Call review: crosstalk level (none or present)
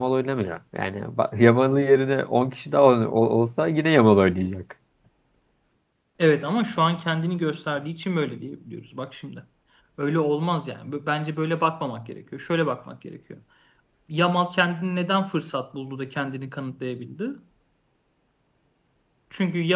none